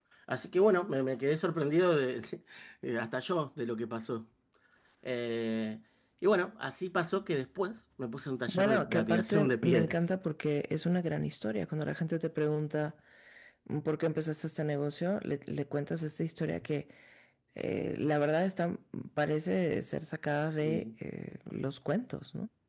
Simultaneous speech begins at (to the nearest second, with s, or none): 8 s